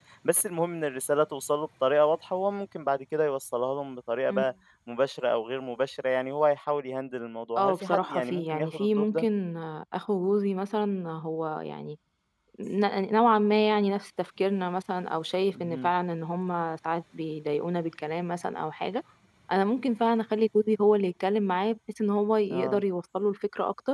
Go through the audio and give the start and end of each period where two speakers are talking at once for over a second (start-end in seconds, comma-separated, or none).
7.6-9.3